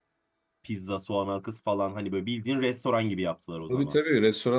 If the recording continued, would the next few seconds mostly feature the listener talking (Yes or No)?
Yes